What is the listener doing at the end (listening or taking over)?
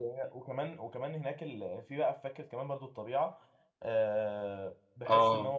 listening